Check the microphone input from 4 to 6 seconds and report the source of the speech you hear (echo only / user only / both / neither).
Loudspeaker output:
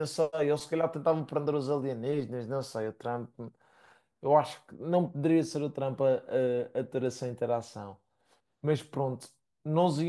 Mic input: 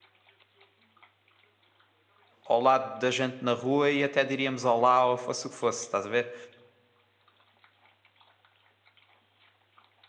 user only